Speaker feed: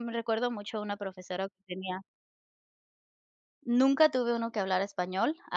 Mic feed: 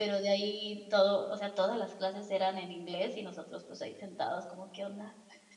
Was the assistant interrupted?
Yes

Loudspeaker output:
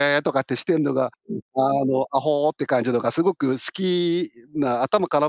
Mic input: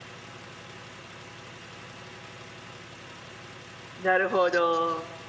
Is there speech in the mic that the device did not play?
Yes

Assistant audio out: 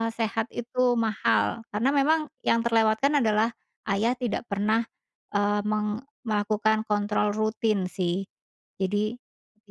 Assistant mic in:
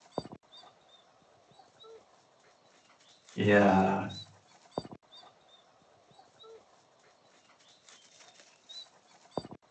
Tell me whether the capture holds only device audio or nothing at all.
No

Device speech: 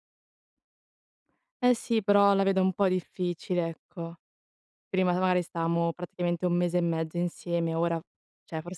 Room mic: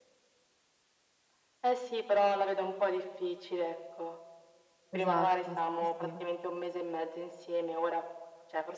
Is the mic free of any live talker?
No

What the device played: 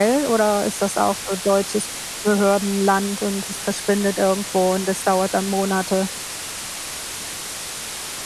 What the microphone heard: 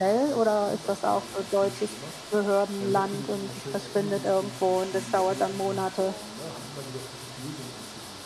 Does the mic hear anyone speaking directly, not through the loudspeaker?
Yes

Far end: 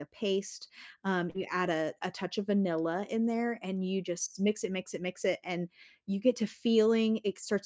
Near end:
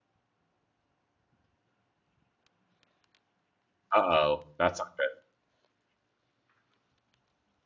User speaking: Yes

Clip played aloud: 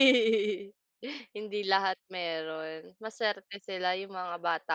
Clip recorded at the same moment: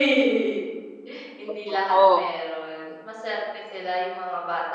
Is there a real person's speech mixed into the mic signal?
Yes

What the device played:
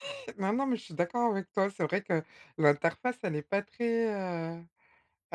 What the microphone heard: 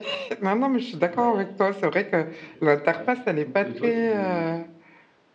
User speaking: Yes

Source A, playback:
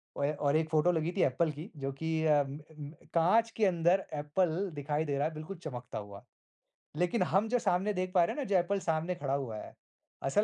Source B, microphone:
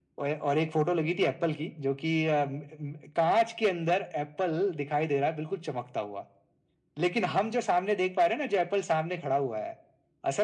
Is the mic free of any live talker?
Yes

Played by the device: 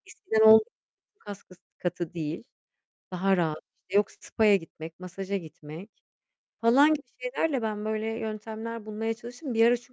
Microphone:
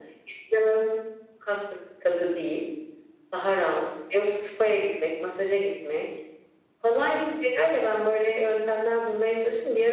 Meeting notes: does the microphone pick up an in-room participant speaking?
No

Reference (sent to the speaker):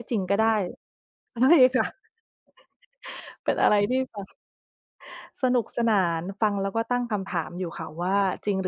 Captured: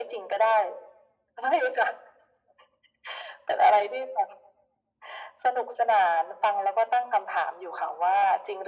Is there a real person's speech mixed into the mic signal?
No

